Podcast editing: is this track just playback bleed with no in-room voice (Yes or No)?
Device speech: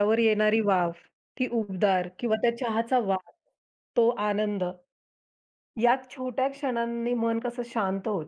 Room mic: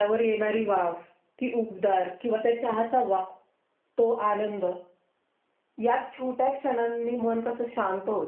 Yes